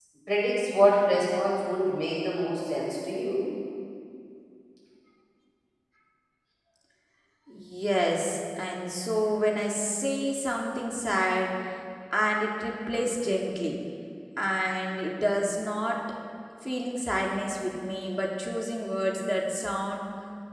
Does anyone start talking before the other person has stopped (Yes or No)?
No